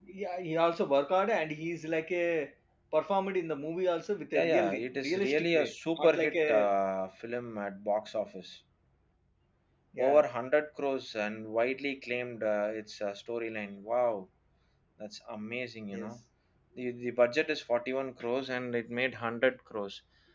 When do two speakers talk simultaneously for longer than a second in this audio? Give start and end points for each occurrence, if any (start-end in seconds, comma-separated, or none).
4.3-6.7